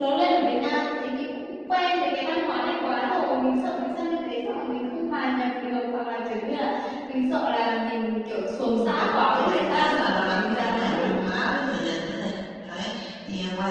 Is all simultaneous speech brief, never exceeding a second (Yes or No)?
No